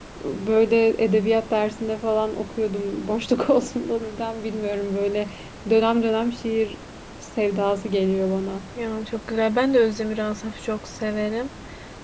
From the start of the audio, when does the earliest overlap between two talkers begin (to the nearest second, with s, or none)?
none